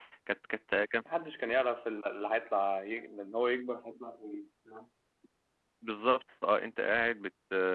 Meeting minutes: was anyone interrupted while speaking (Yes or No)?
No